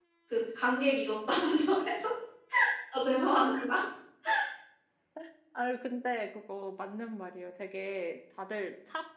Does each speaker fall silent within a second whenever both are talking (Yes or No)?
Yes